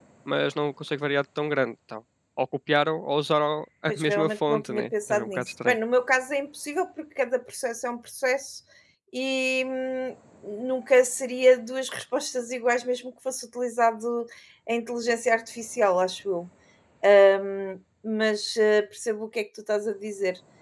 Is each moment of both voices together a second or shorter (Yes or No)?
No